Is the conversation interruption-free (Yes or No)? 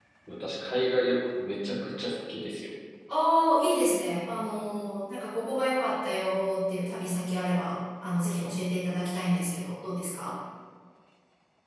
Yes